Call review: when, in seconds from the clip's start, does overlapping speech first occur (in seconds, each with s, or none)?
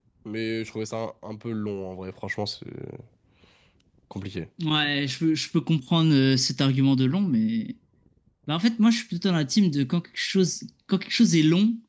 none